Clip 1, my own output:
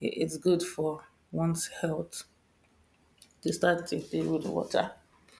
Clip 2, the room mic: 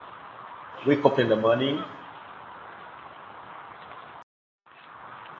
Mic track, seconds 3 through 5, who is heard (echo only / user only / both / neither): neither